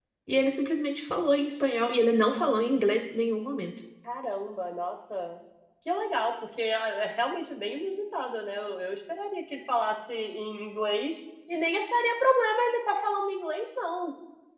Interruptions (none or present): none